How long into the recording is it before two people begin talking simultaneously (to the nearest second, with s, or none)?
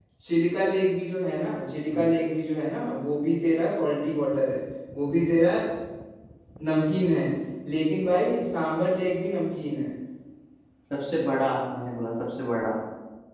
none